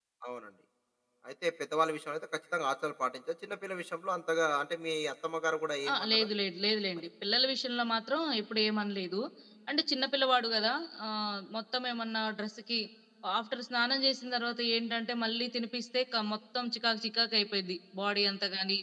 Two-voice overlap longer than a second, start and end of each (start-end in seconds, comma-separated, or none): none